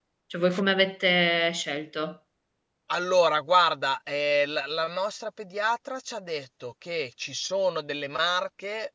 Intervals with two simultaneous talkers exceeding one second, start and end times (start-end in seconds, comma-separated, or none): none